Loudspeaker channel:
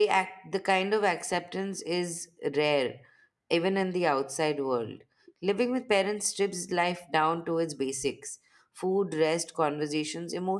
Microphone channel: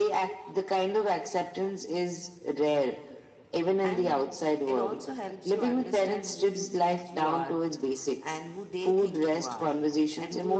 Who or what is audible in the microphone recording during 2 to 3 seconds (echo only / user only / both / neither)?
echo only